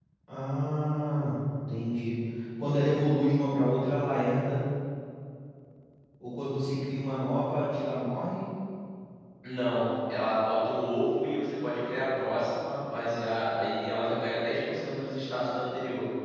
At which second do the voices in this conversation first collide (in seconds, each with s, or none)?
none